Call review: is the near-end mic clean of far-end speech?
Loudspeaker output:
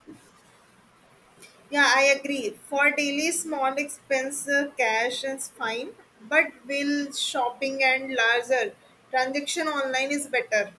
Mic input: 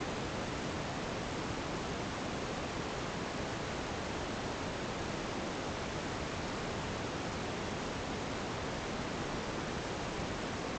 Yes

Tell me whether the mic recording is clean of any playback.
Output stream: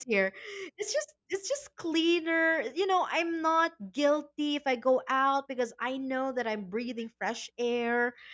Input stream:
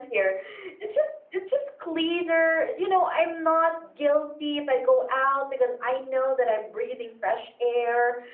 No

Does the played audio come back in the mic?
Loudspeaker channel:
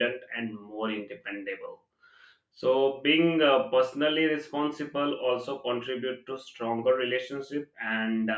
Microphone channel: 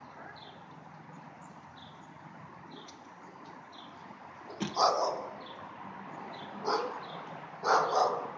No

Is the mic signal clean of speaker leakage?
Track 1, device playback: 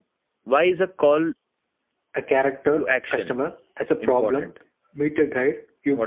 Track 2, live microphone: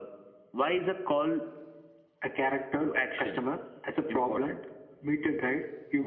No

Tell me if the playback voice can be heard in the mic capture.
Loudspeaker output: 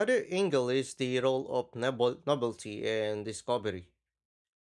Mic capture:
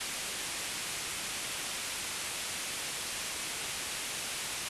No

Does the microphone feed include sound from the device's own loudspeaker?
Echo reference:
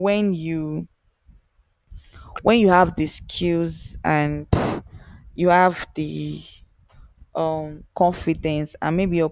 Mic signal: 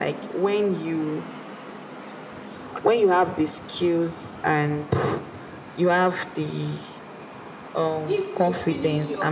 Yes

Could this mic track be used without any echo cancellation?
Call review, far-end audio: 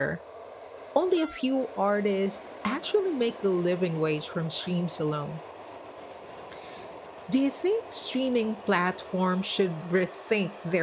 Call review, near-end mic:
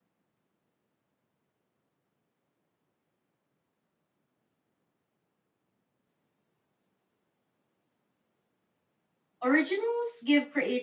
Yes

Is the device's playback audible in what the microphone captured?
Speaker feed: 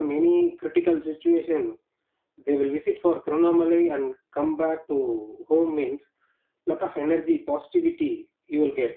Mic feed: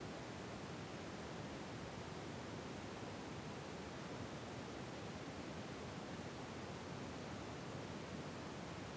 No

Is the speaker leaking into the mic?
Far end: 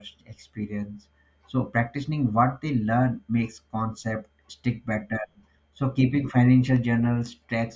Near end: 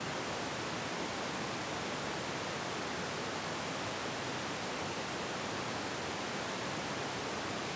No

